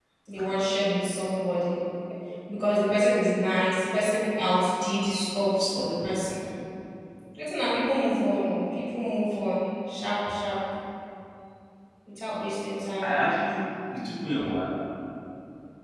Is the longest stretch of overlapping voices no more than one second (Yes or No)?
Yes